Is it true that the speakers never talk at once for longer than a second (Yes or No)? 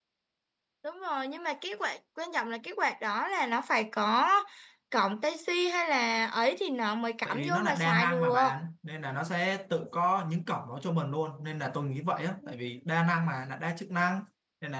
No